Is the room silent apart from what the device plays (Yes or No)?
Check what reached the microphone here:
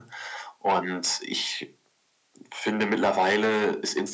Yes